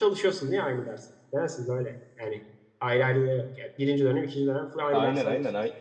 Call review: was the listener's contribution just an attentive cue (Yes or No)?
No